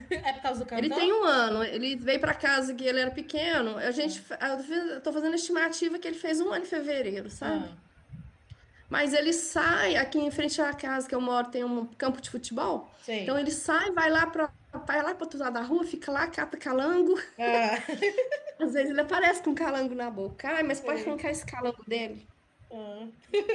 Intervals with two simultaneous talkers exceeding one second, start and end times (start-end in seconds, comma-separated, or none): none